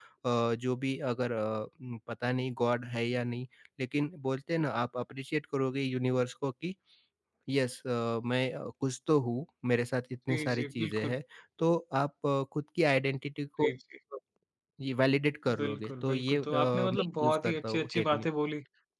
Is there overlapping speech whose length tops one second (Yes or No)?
Yes